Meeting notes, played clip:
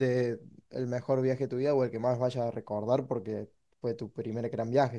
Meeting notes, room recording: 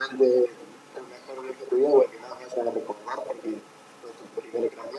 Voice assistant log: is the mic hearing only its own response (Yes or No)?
Yes